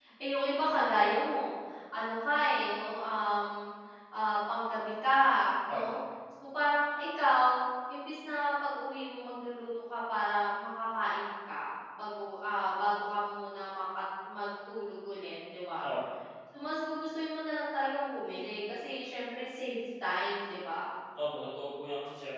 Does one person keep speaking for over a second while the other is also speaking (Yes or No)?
No